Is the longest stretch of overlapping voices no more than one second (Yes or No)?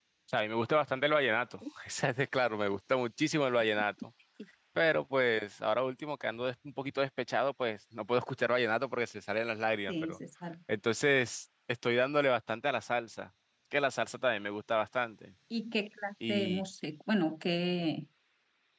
Yes